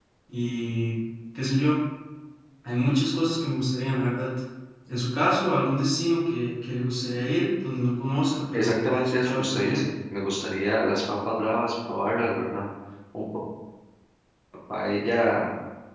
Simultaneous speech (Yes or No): Yes